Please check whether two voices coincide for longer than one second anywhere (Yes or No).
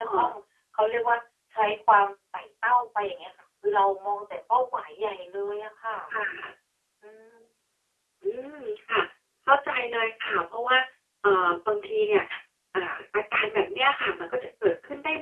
No